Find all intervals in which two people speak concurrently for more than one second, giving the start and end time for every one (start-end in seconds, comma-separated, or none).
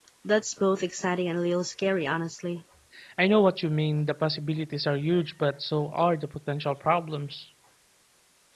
none